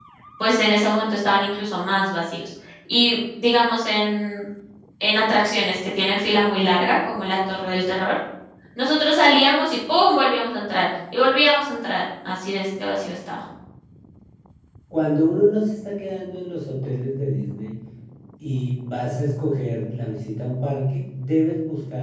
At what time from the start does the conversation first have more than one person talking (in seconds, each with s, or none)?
none